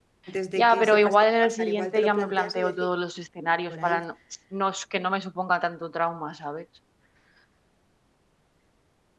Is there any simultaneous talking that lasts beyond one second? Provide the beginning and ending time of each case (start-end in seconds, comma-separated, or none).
0.6-2.9